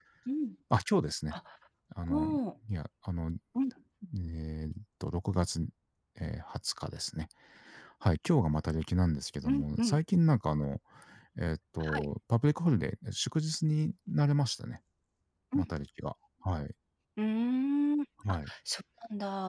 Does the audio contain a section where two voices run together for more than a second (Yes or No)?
No